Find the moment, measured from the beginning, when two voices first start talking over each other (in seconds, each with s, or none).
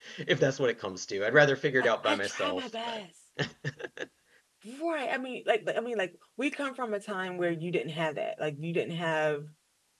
1.8 s